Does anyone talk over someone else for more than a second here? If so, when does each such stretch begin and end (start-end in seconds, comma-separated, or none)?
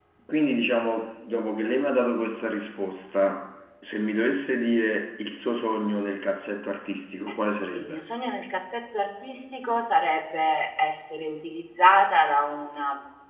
none